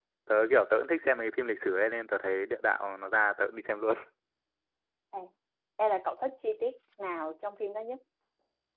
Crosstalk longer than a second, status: none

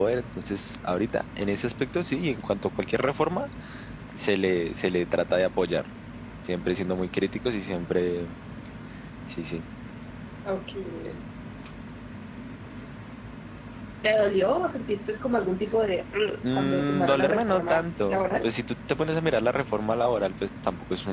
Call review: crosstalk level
present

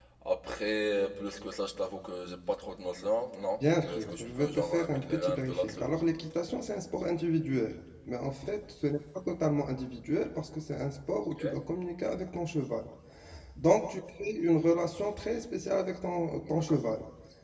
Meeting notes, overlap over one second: present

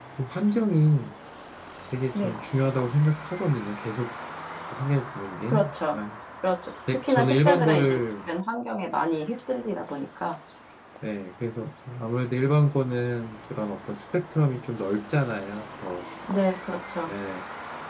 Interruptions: present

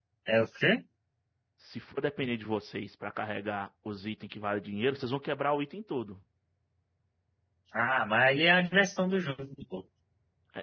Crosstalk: none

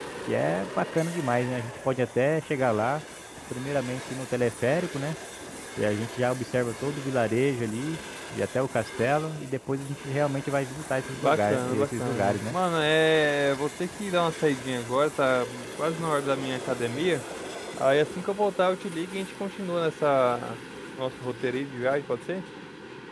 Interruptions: present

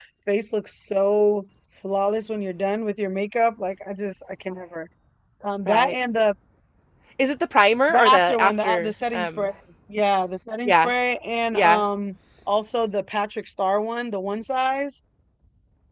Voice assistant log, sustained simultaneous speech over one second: present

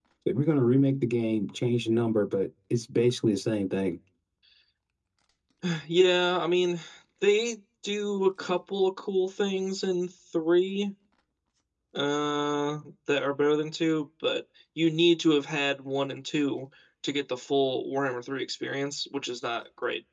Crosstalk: none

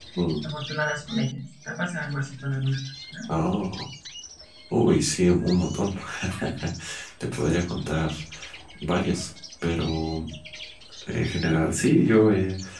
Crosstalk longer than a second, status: none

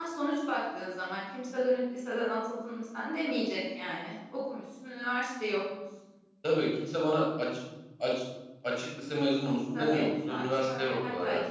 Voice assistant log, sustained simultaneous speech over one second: present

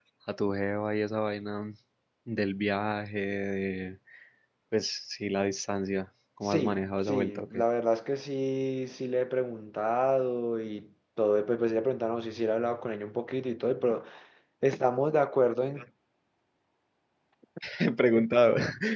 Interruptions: present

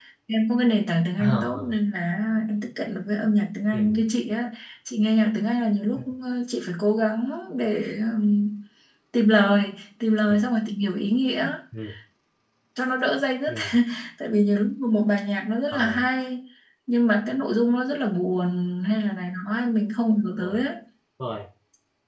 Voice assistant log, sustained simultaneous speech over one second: none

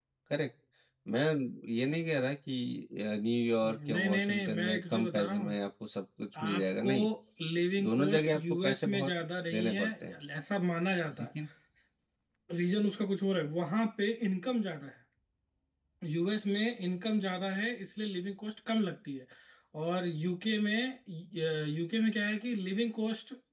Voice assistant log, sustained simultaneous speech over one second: present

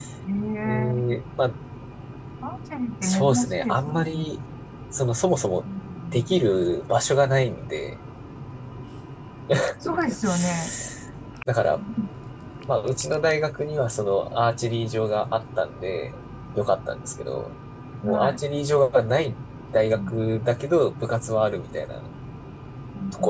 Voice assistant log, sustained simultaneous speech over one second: present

